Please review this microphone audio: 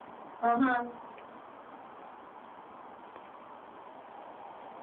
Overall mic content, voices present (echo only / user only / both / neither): user only